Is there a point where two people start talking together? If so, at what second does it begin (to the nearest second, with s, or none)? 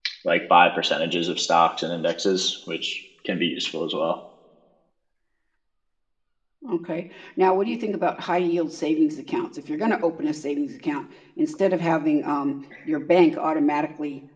none